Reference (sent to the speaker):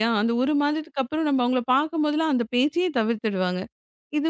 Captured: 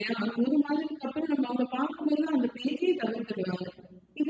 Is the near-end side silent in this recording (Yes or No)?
Yes